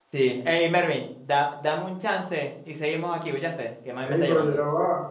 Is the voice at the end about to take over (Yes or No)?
Yes